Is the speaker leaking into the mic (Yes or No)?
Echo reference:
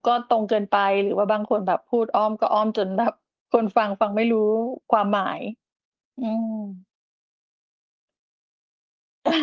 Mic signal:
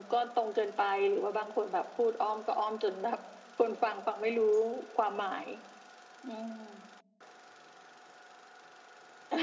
Yes